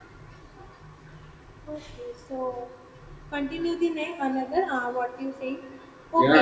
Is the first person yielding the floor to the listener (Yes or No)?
Yes